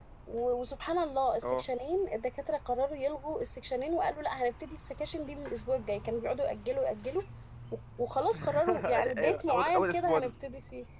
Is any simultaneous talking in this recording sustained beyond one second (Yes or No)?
Yes